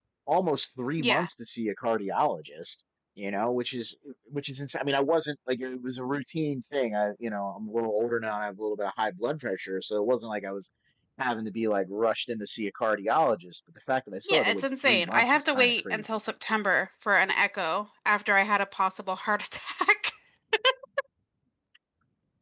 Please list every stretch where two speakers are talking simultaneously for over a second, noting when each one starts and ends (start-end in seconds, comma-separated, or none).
14.3-16.0